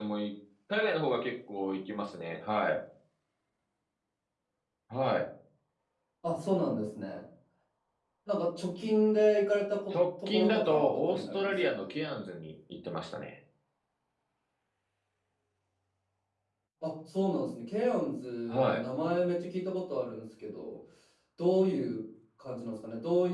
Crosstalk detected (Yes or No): Yes